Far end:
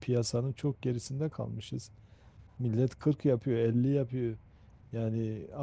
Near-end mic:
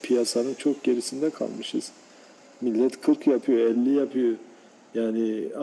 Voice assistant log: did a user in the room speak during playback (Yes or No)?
No